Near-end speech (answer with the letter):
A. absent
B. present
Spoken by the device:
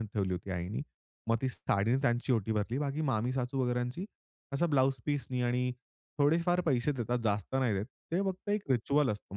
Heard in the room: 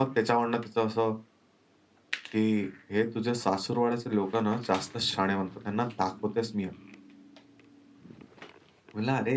B